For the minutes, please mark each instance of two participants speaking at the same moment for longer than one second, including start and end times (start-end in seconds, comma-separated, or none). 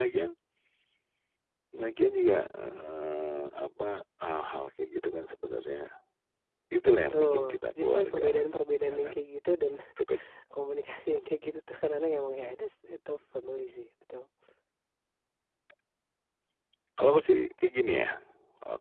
7.1-8.5